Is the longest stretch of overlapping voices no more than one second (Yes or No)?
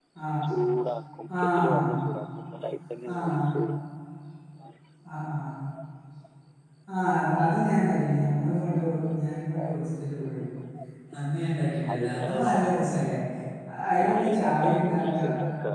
No